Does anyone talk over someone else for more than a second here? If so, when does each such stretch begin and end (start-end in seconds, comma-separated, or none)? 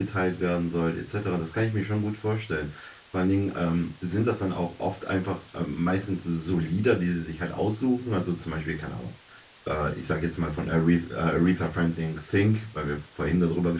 none